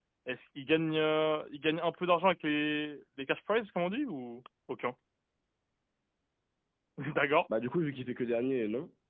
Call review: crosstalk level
none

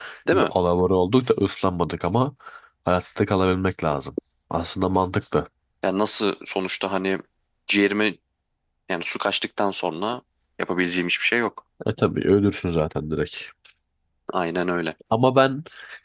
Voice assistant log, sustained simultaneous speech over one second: none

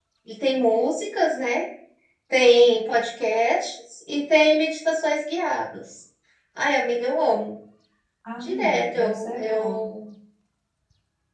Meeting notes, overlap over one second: present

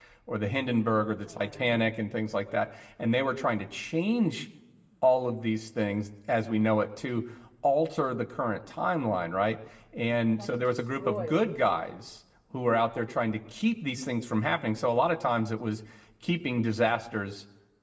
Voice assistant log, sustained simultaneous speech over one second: present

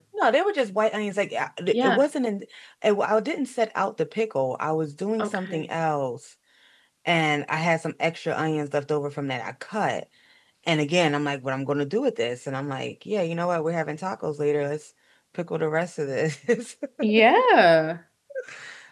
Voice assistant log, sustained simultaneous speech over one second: none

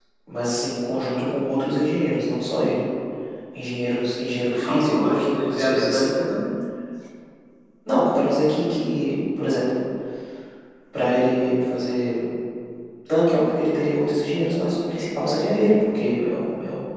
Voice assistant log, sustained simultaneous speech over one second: present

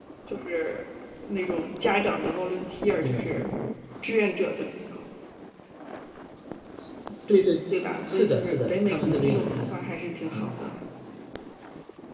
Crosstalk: present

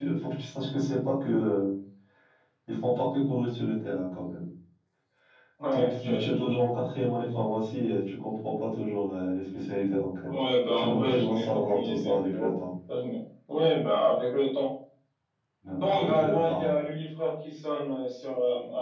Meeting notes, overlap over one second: present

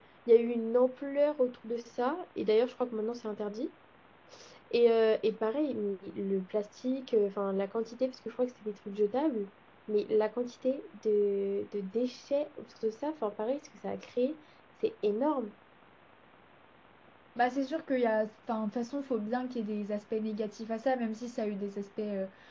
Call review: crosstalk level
none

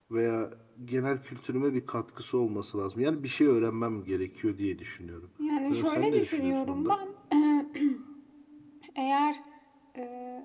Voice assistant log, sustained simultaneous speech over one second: present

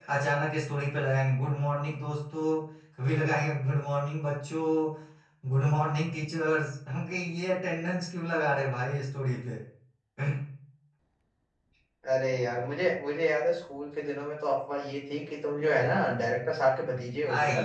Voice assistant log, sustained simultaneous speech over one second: none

